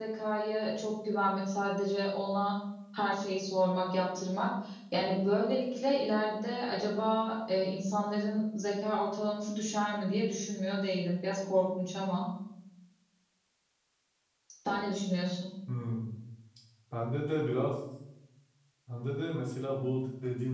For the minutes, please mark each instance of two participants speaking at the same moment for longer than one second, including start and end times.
none

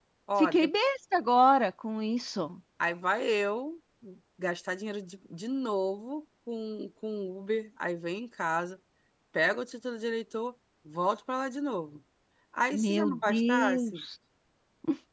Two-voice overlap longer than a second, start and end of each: 12.7-14.0

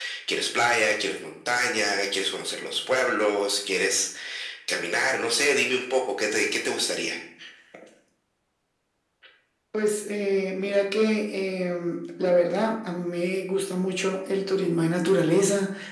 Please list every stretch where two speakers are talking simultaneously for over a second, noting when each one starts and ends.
none

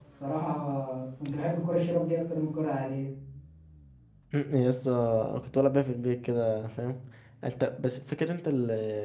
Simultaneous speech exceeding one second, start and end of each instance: none

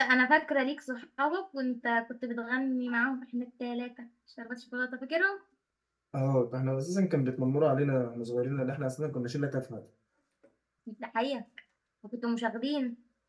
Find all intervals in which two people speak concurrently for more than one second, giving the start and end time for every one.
none

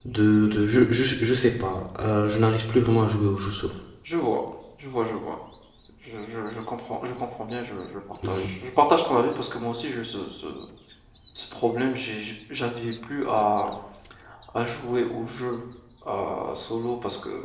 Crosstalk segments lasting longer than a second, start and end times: none

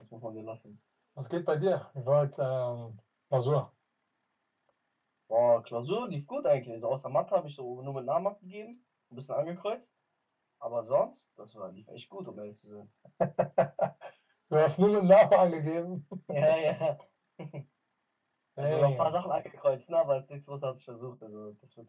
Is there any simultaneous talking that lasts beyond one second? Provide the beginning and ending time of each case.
none

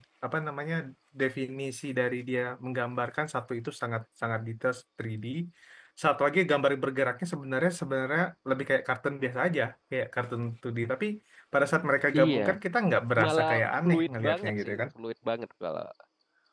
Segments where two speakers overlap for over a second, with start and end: 13.2-14.8

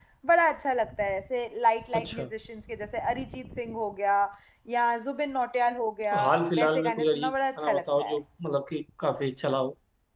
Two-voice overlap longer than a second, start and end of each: 6.6-8.2

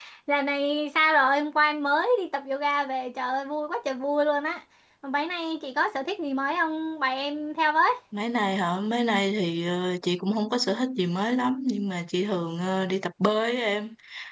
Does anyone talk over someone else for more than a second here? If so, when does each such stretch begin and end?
none

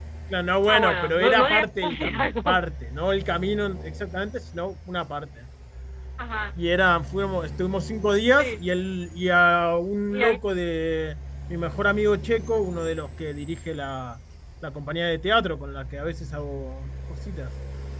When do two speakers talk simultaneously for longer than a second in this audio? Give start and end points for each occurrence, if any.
0.7-2.6

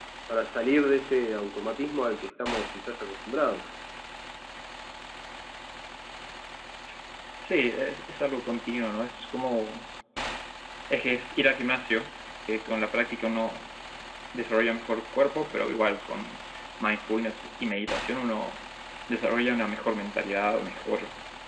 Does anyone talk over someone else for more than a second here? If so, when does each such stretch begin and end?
none

